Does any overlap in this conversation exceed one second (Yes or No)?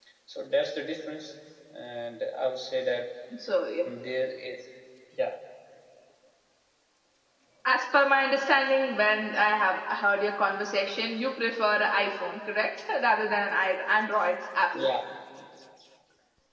No